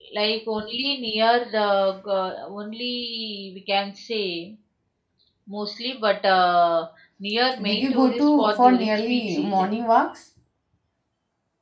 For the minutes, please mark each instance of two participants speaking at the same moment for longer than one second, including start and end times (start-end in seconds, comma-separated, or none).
7.6-9.7